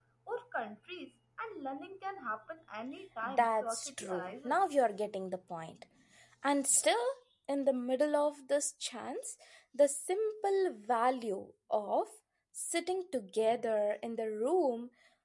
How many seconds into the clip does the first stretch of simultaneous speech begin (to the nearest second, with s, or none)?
3 s